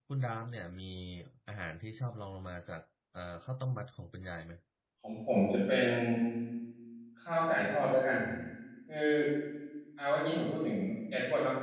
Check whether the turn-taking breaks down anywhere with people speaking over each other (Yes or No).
No